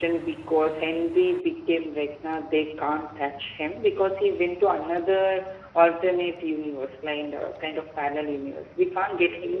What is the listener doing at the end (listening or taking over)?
listening